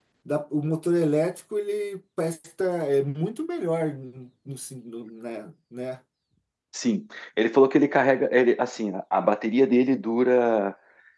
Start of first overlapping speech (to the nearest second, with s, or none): none